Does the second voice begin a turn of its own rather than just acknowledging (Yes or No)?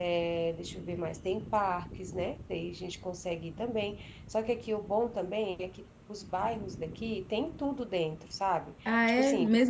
Yes